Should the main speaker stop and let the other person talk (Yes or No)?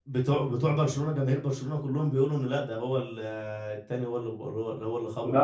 Yes